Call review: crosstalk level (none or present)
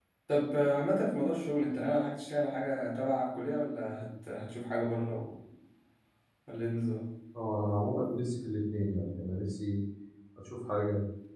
none